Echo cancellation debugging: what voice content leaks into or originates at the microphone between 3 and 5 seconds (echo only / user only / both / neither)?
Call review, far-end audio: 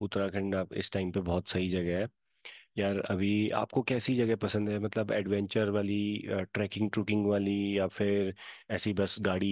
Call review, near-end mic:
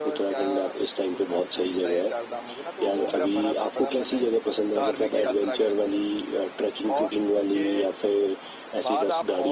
both